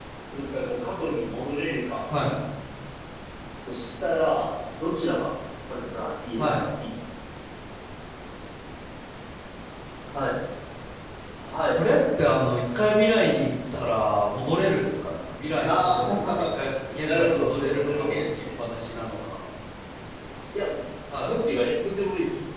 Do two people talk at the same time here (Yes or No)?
Yes